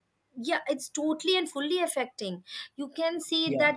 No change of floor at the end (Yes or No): Yes